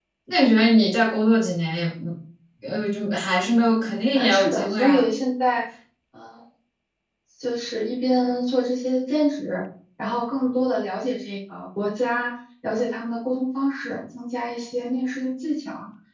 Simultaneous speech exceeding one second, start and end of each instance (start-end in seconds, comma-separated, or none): 3.7-5.1